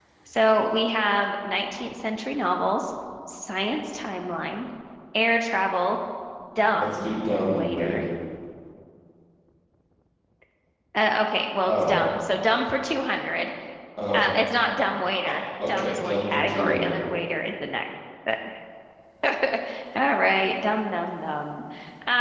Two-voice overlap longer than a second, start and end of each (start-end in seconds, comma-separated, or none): 6.7-8.0, 15.6-17.0